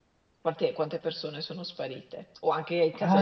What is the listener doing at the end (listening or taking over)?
taking over